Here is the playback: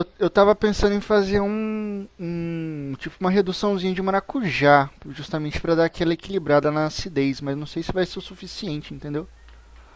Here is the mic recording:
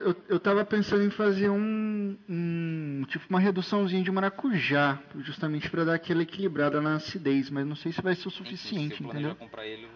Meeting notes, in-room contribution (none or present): present